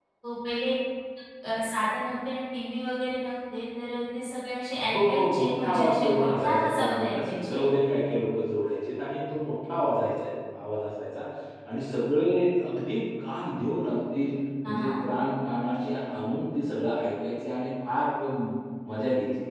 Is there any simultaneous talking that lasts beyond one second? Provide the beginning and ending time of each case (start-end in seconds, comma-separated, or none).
4.8-7.6